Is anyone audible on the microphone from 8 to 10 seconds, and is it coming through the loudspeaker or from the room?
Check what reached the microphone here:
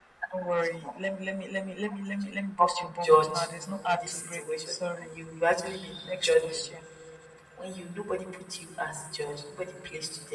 user only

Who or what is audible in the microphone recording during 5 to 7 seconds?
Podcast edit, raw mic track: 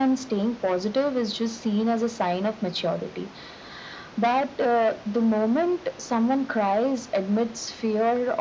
echo only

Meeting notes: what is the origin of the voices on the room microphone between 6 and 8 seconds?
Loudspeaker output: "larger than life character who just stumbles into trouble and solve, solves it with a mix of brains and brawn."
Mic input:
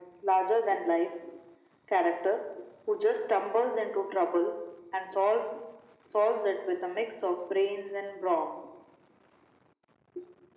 echo only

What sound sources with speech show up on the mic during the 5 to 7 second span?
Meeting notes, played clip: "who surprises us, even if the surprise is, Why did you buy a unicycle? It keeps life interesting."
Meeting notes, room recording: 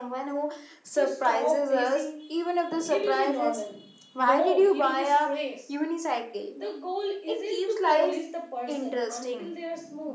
both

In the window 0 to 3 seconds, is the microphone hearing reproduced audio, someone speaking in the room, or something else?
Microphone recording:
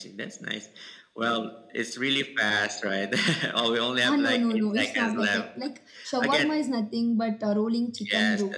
echo only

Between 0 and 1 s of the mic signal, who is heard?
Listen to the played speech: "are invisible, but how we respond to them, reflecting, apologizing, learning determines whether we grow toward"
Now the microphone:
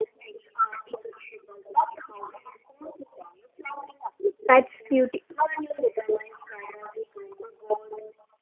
echo only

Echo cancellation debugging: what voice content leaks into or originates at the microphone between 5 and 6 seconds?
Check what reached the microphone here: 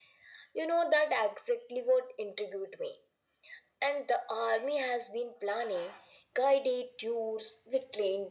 echo only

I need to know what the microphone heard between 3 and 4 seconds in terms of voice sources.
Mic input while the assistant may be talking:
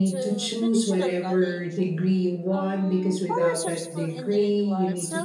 both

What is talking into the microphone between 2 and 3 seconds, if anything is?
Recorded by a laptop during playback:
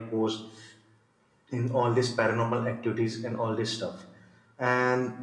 echo only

